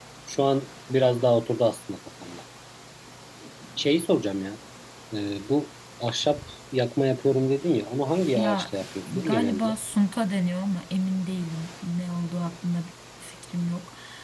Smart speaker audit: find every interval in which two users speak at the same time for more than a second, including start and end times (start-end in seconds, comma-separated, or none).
8.3-9.7